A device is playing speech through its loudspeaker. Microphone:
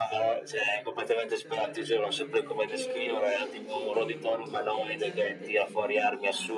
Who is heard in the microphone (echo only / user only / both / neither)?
both